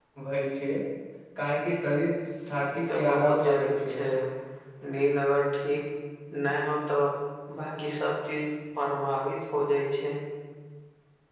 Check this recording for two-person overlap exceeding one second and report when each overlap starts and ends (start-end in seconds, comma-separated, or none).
2.7-4.0